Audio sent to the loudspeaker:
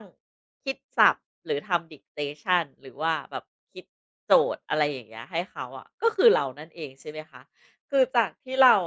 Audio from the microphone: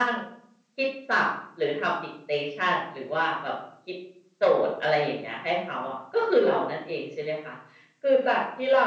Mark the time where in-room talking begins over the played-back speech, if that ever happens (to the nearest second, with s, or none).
none